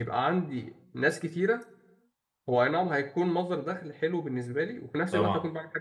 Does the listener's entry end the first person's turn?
No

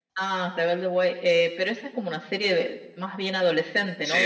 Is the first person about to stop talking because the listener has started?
Yes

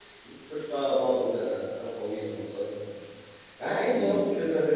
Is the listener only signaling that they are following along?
Yes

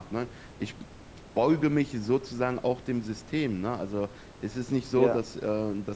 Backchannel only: Yes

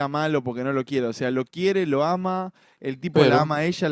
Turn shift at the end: No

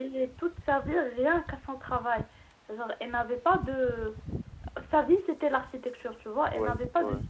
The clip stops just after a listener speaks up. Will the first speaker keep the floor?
Yes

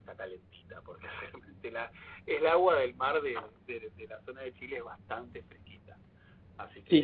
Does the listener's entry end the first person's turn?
Yes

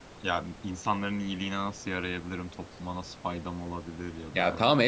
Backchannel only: No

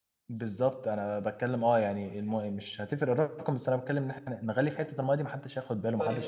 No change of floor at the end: No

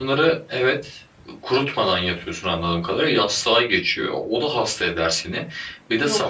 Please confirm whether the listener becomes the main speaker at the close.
No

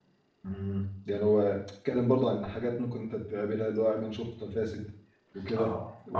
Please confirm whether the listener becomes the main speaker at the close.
No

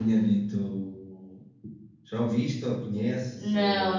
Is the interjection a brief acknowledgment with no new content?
No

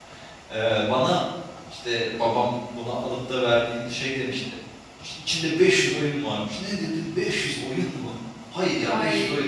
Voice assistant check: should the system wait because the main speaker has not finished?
Yes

